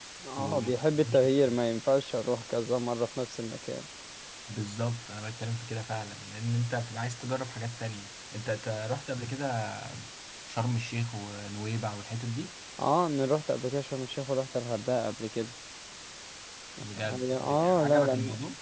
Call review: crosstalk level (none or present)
present